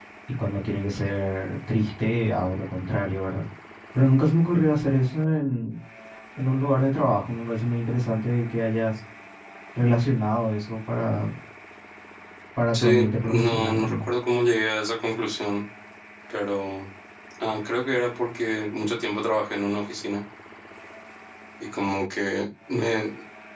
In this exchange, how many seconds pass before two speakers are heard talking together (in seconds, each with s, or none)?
12.7 s